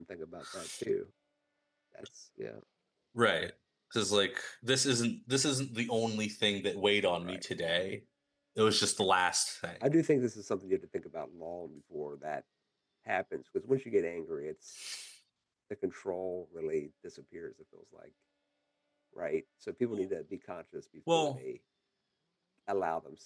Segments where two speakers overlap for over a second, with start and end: none

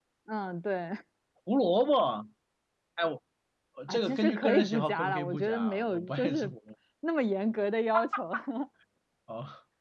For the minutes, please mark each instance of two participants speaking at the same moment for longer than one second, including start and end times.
3.9-6.5

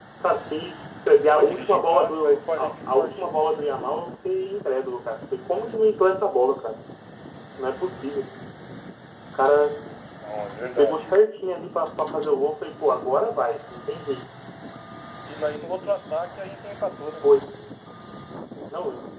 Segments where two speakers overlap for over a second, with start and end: 1.3-3.2

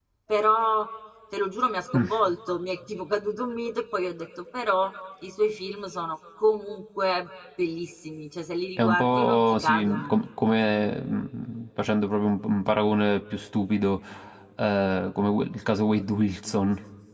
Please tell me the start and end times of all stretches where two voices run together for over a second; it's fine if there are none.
8.8-10.1

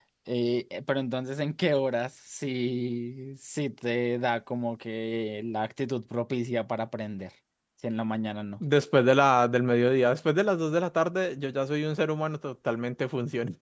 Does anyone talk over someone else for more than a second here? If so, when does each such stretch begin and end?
none

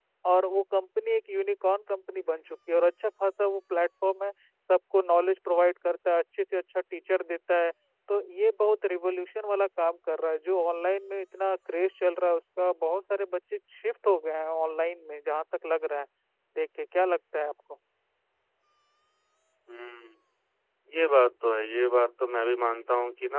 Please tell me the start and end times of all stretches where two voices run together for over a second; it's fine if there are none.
none

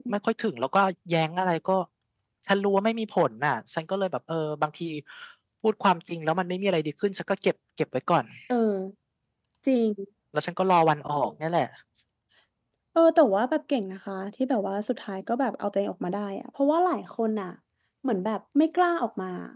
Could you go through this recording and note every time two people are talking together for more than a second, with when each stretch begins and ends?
none

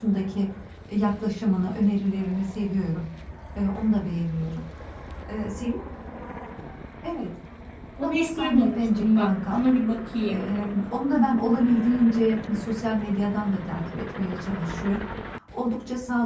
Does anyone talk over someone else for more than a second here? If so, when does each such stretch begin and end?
8.0-9.6

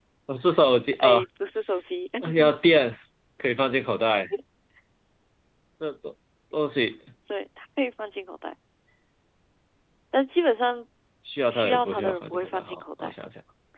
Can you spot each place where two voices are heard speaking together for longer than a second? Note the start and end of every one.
11.5-13.1

